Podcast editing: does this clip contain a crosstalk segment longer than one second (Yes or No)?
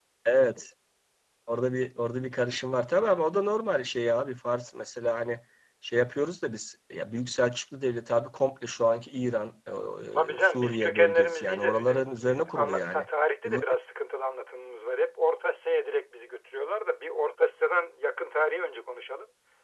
Yes